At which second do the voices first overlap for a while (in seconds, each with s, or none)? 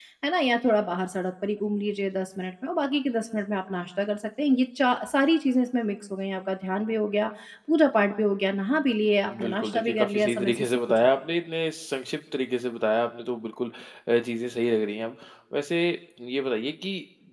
9.3 s